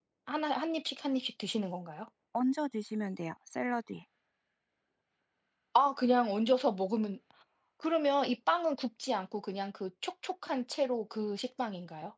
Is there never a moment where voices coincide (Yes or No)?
Yes